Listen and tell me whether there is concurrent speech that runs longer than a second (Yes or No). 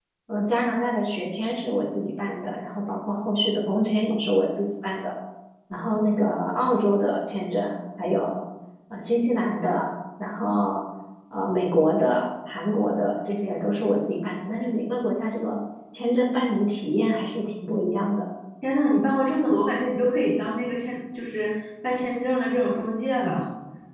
No